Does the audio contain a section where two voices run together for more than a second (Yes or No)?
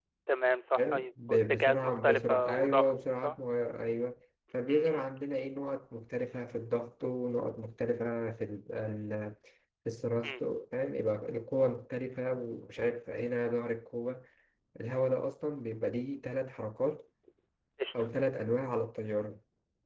Yes